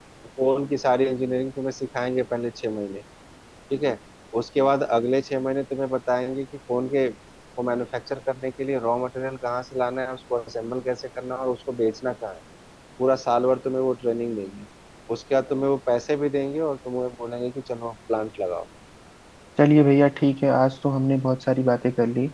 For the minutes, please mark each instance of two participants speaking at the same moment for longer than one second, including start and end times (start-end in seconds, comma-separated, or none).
none